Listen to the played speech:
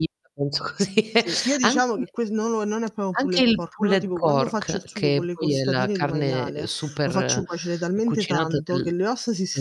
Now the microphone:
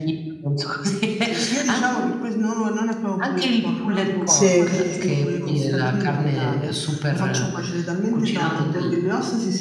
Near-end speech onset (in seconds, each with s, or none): 4.3 s